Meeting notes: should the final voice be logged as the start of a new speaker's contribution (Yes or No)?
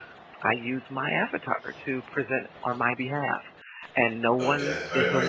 Yes